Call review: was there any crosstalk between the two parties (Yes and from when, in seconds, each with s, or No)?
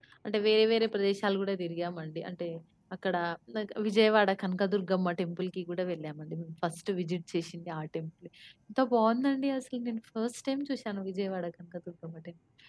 No